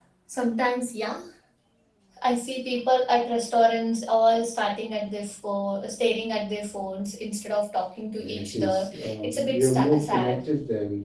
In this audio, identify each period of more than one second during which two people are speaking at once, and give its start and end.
8.2-10.4

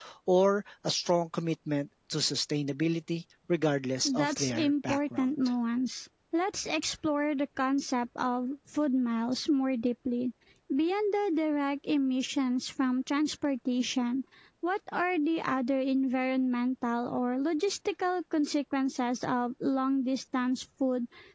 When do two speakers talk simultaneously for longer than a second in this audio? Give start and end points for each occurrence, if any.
4.1-5.3

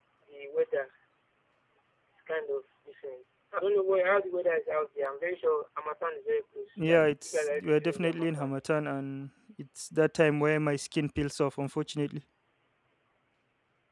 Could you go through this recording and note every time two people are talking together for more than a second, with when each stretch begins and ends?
6.9-8.5

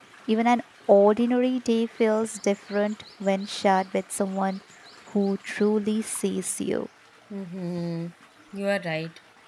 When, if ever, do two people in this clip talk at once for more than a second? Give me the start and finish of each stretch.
none

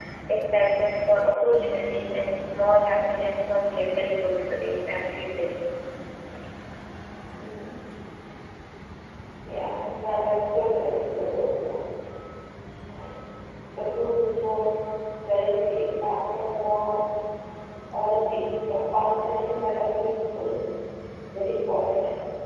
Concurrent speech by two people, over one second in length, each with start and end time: none

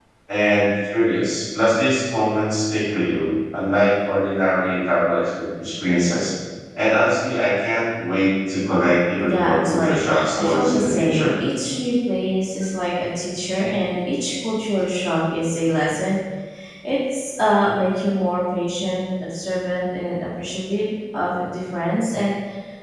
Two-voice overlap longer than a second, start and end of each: 9.2-11.3

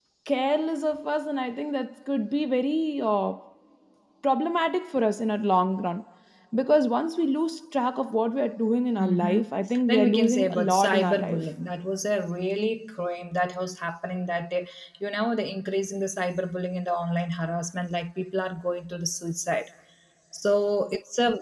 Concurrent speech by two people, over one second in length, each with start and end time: 9.9-11.4

